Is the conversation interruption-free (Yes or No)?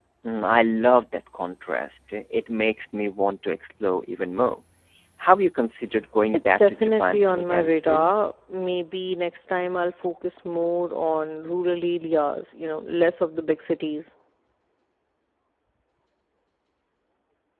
No